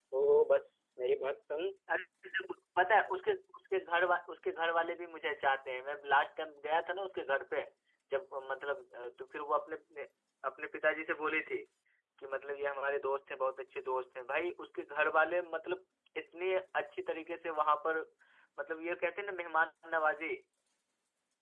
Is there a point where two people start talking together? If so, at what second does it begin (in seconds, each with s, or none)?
none